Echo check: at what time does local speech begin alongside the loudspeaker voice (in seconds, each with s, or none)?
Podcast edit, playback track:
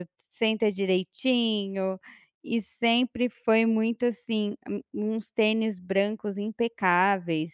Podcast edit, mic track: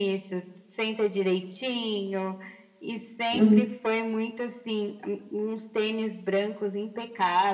3.3 s